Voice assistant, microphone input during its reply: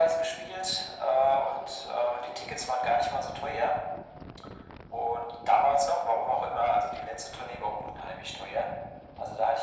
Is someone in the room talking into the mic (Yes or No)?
No